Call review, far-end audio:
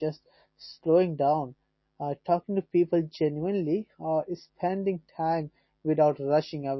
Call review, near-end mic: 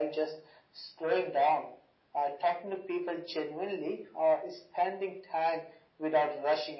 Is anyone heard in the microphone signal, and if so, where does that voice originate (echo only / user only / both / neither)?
echo only